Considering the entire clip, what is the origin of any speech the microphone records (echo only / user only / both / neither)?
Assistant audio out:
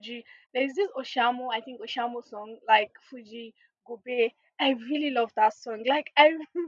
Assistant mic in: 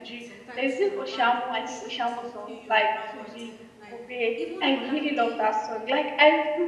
both